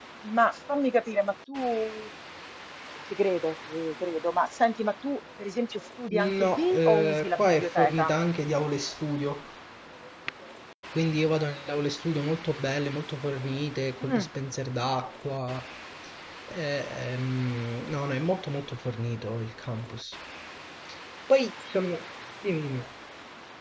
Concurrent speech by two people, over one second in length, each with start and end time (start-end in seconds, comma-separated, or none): 6.1-8.1